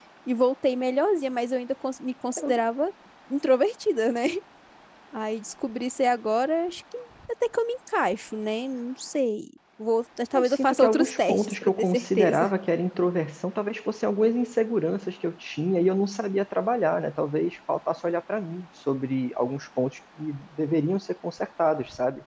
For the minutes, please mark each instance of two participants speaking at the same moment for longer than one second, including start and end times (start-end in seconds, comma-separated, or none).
10.3-12.5